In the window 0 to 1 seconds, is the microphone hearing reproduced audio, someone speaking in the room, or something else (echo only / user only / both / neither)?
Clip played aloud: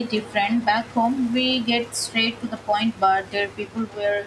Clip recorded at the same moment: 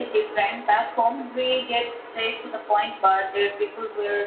echo only